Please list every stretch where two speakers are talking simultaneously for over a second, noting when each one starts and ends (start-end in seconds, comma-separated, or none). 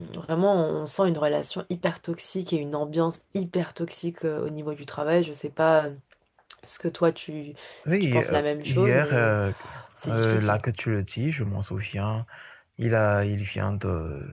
7.9-9.4